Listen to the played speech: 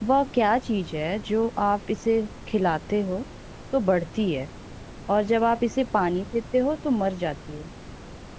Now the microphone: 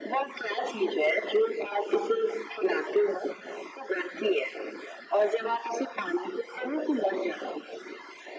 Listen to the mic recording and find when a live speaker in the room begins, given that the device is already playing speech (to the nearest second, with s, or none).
none